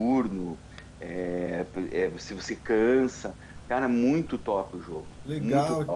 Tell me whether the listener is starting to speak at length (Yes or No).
Yes